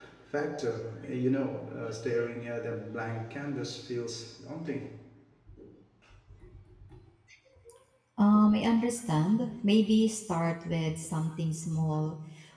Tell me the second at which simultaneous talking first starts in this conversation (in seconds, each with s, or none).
none